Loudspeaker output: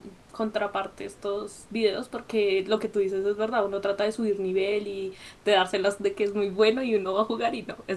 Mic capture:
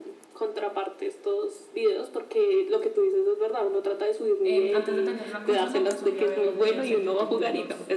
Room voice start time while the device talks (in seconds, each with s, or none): 4.4 s